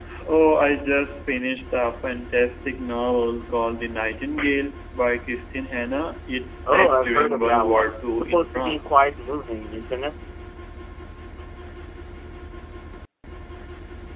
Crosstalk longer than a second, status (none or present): present